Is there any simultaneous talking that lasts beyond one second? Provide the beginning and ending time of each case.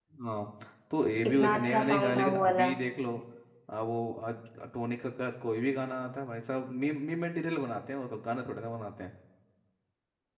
1.2-2.7

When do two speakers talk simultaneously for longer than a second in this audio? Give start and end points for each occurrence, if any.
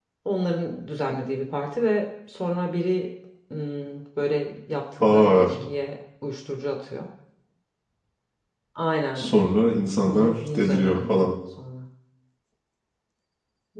10.1-11.3

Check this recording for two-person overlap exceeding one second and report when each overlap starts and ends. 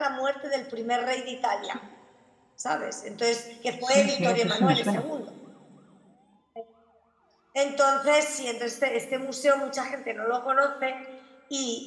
3.8-5.0

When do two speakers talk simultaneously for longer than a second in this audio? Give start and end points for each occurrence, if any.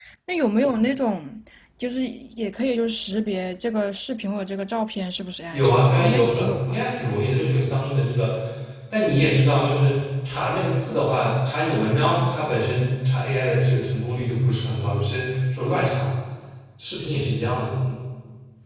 5.5-6.8

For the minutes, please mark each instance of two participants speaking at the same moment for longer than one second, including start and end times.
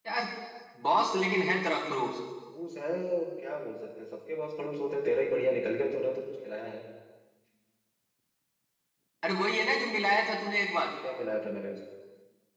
none

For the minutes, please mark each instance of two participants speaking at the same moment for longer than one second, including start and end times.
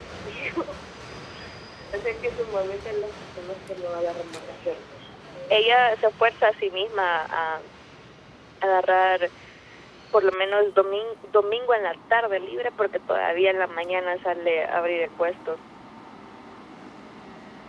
none

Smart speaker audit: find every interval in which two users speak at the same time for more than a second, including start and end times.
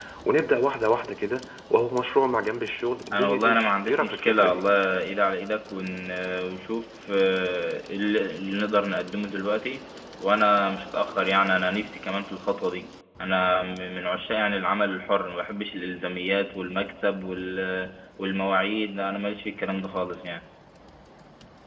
3.1-4.6

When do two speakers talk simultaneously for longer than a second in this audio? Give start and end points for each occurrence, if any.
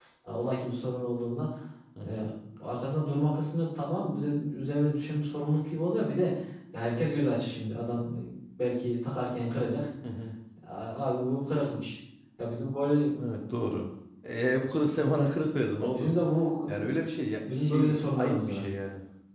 17.4-18.6

